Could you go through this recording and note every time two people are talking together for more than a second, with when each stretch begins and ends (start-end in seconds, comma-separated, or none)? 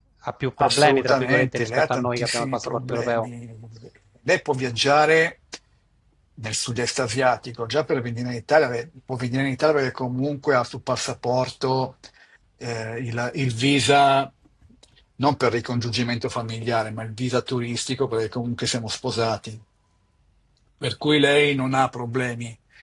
0.6-3.3